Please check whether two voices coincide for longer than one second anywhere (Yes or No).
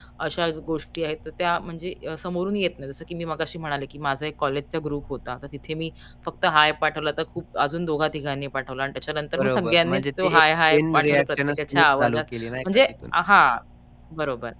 Yes